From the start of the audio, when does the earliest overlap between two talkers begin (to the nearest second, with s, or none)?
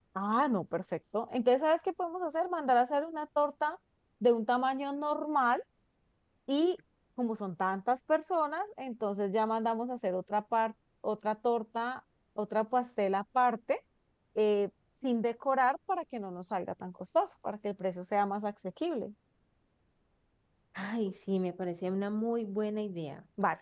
none